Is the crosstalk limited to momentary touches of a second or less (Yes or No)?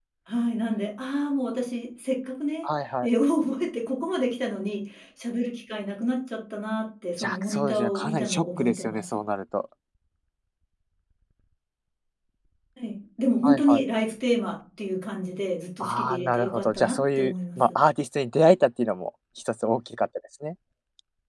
No